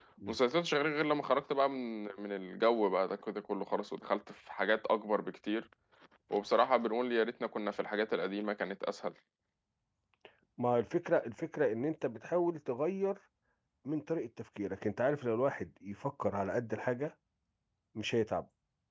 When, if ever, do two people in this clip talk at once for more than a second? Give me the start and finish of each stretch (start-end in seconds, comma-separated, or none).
none